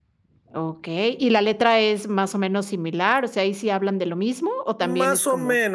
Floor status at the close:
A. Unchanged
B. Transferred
B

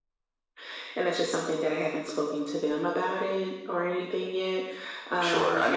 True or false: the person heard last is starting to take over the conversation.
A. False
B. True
B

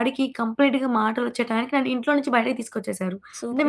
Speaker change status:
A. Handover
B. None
A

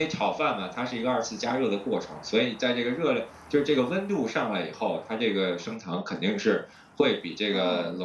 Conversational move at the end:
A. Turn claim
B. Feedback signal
B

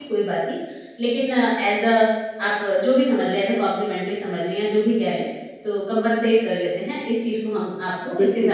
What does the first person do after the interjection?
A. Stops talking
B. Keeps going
A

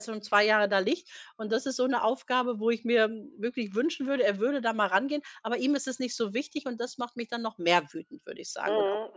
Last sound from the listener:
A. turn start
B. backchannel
A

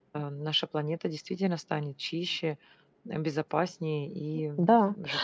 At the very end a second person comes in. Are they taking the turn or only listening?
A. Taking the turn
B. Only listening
A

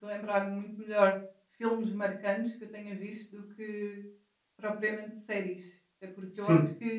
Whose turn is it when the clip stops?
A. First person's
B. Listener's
A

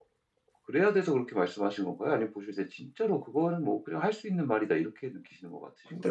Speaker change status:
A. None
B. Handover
B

